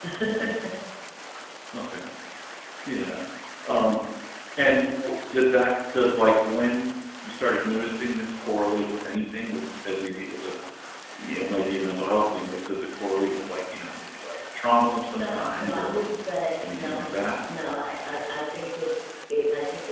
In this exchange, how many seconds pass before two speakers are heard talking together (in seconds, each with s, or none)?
14.7 s